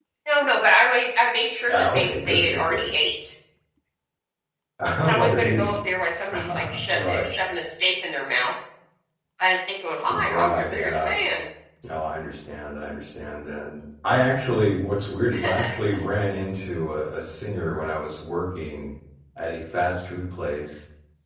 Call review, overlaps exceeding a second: present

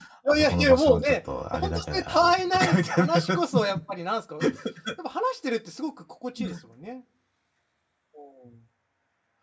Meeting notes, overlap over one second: present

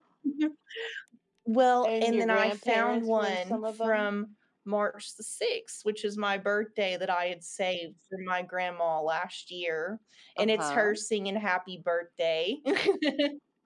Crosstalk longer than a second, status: present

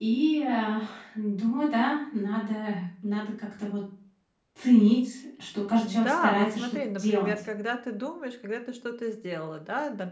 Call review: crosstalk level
present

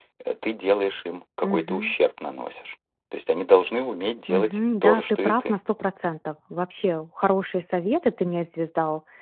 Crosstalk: present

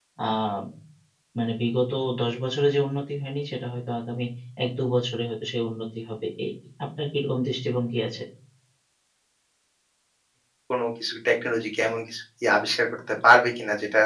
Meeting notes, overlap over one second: none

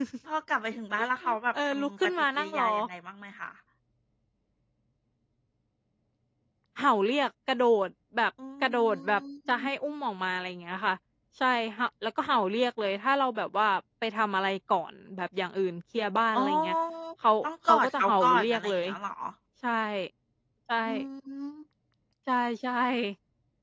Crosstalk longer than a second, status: present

